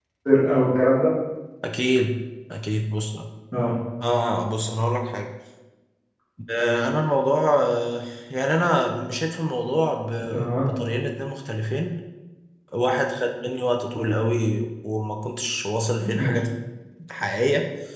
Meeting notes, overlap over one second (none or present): none